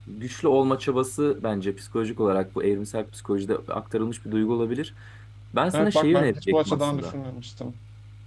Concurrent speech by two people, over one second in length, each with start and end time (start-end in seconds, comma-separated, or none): 5.7-7.1